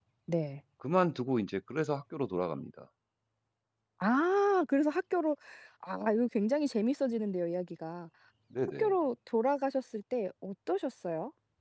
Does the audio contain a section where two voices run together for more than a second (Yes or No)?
No